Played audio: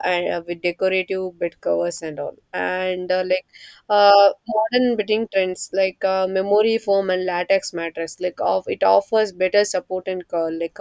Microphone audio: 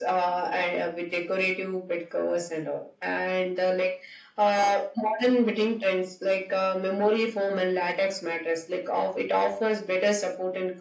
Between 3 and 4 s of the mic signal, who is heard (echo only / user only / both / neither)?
echo only